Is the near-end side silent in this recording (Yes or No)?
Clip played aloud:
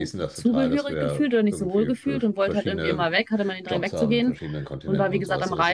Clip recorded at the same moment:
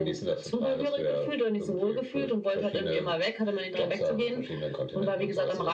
Yes